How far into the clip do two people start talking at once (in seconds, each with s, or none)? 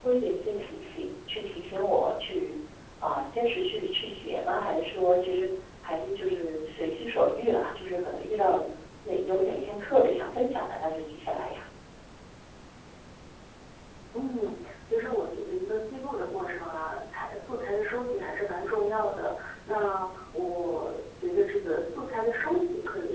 none